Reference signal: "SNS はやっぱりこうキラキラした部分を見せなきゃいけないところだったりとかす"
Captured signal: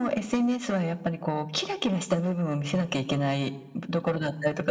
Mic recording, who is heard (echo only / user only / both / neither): echo only